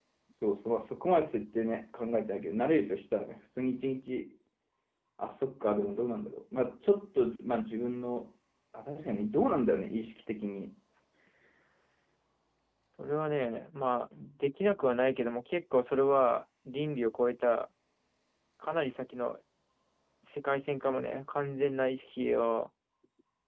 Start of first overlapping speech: none

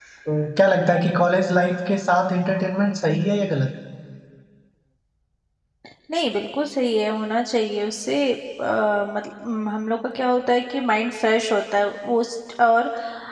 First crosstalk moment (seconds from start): none

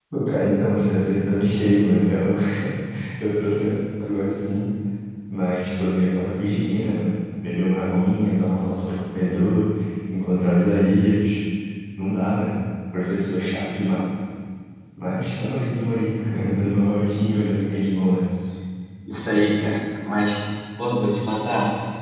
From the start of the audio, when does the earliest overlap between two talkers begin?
none

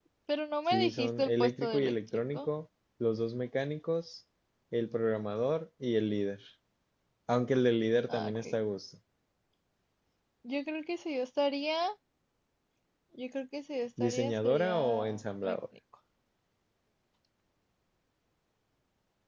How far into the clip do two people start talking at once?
0.7 s

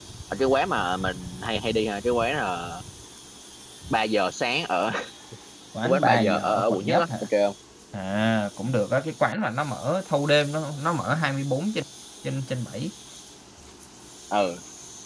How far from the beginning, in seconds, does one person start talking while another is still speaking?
5.8 s

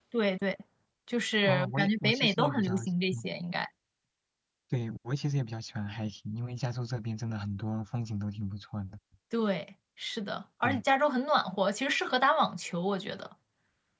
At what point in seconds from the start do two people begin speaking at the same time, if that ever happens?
1.4 s

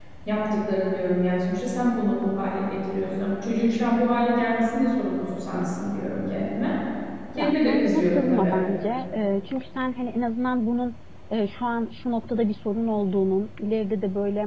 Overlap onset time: 7.4 s

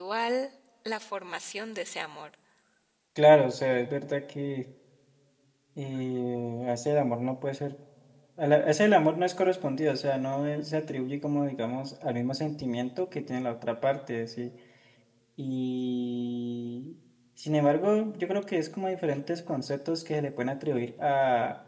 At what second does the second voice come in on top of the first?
none

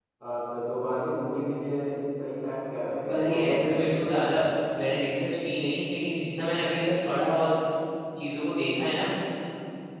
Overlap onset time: 3.0 s

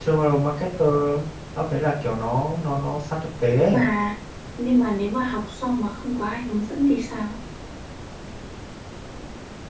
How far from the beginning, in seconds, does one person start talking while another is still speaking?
none

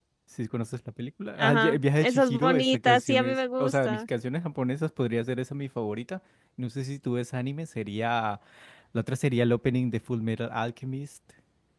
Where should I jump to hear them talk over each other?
1.4 s

